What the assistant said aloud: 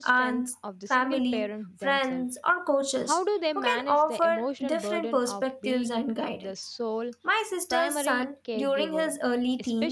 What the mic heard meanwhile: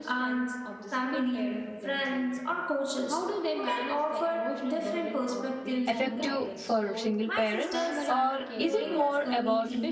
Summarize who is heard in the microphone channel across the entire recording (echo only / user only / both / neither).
both